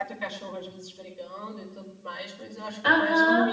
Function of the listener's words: taking over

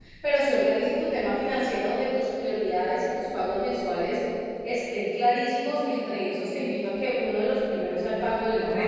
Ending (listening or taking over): taking over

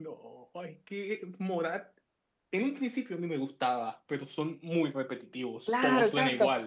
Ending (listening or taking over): taking over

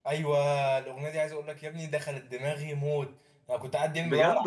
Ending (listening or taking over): listening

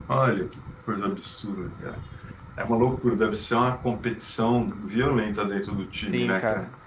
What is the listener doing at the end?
taking over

